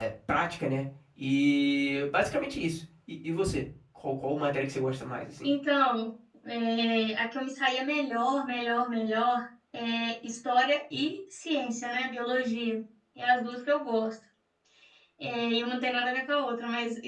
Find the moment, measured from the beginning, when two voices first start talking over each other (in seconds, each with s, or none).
none